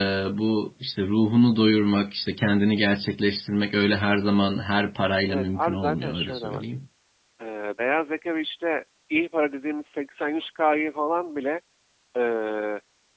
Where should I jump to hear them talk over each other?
5 s

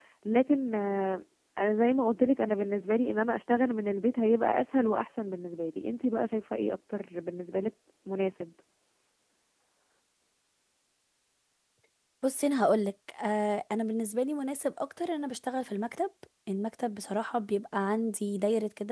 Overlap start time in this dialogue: none

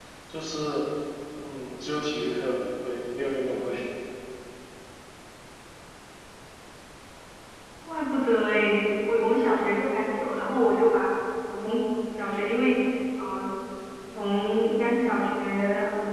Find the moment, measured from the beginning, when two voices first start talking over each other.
none

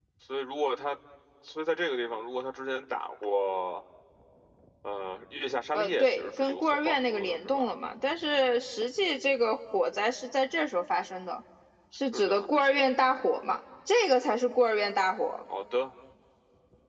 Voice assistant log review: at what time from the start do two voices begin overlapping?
6 s

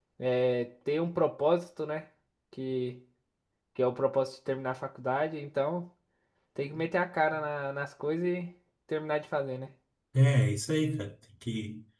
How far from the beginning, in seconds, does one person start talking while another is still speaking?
none

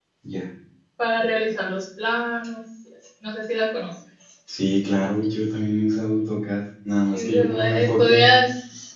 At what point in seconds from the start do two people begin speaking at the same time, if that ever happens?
7 s

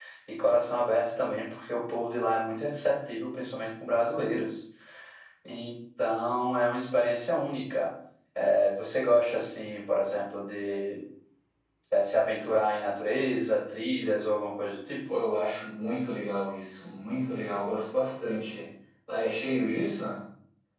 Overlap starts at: none

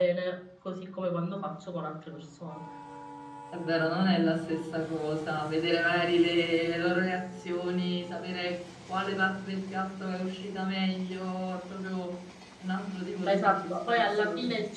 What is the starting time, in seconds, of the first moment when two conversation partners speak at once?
13 s

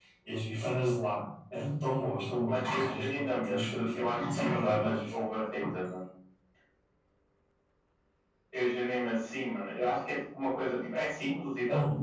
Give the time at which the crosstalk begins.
2 s

